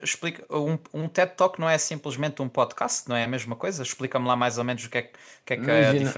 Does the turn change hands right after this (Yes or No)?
Yes